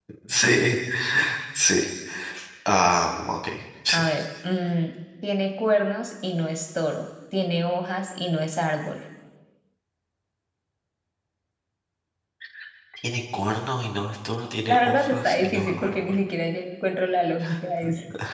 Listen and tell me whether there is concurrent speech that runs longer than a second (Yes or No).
Yes